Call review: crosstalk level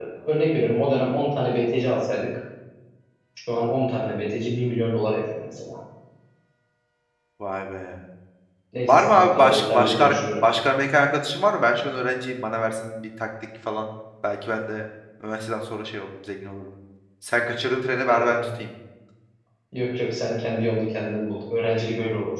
present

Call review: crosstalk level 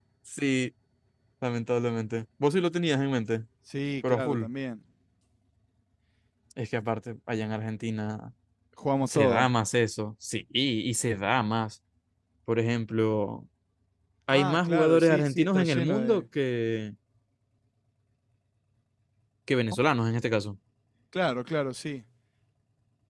present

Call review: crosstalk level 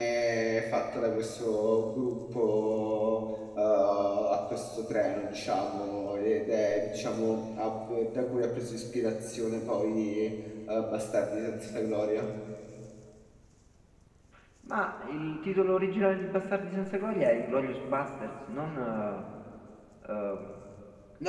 none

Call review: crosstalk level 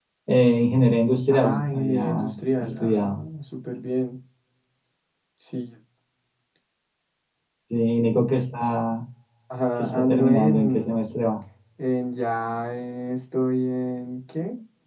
present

